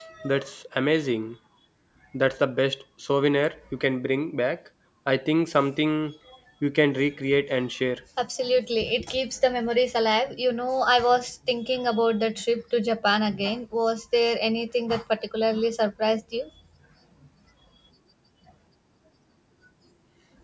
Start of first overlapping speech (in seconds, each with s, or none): none